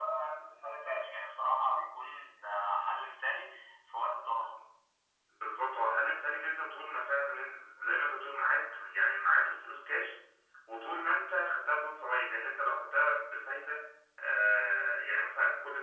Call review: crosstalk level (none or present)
none